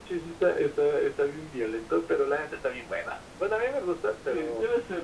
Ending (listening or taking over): taking over